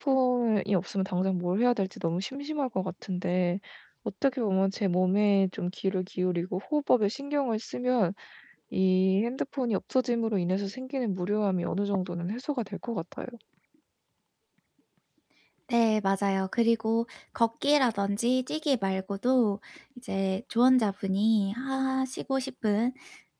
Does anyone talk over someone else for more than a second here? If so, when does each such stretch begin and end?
none

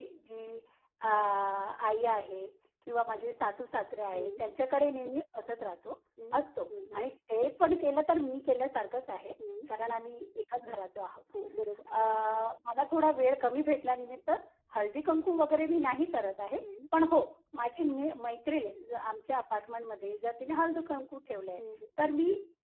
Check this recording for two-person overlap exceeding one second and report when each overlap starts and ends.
none

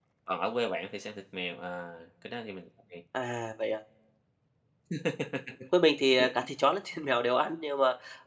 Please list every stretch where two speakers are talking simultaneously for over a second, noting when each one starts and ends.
none

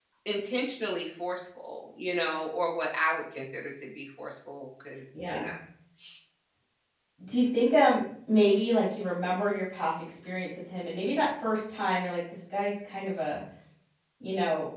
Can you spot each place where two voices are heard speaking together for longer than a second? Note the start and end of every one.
none

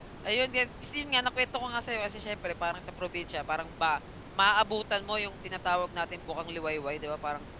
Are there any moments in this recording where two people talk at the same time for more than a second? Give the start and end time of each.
none

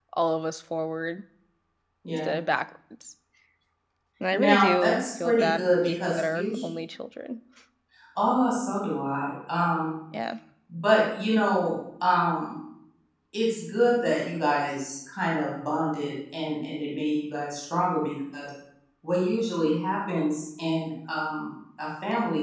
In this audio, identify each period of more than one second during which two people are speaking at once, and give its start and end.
4.3-6.7

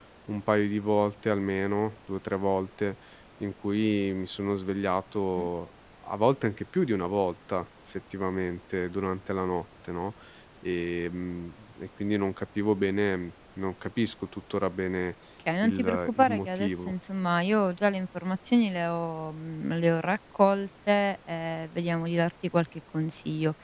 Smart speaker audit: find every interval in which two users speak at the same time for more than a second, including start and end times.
15.6-16.9

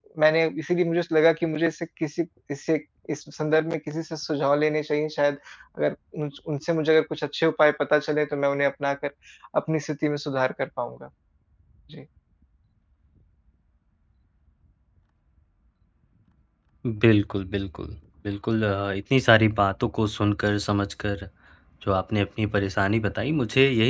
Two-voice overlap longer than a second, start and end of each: none

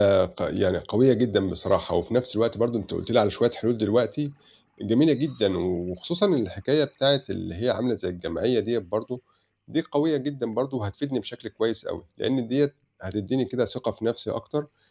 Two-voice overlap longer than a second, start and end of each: none

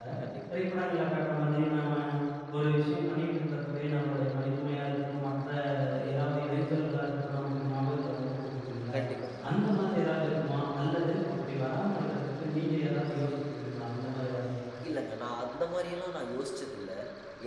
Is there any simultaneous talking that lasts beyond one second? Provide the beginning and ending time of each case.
none

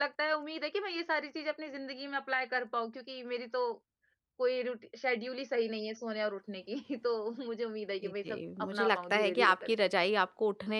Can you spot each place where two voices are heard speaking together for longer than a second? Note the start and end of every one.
8.0-9.7

